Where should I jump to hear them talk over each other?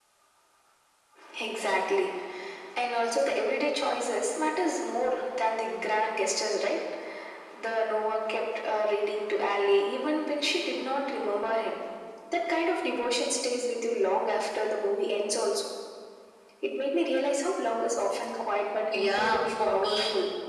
18.9 s

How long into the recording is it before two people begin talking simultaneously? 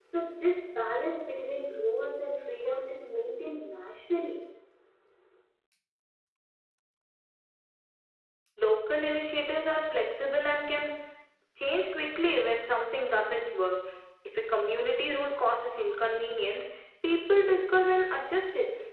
none

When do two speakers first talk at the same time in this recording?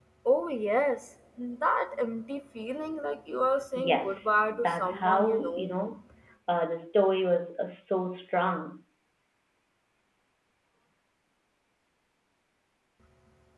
3.8 s

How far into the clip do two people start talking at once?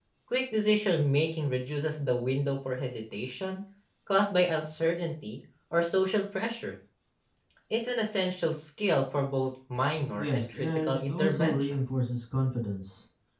10.2 s

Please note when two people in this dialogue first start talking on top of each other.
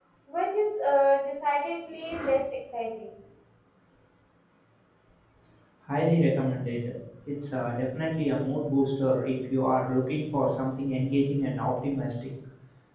none

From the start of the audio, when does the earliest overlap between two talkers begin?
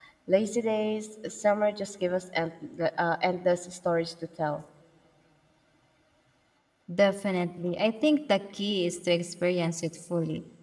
none

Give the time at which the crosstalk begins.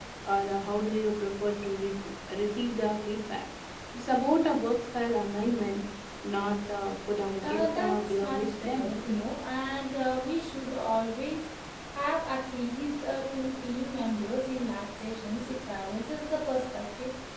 7.4 s

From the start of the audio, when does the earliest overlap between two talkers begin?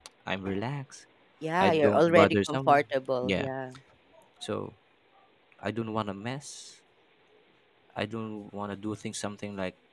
1.6 s

